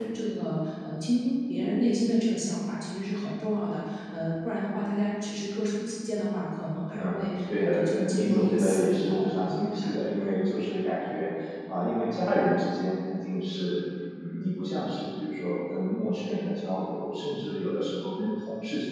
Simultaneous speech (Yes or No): Yes